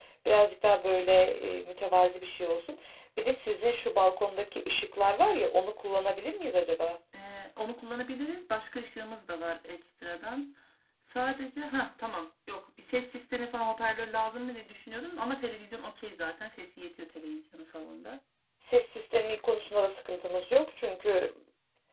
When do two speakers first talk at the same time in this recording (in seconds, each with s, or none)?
none